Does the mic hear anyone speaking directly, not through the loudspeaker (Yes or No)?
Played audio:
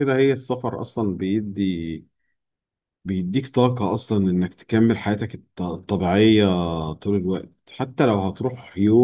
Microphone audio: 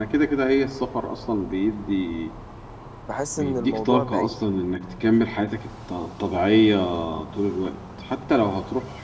Yes